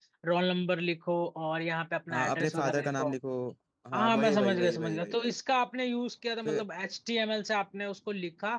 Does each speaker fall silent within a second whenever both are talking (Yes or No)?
No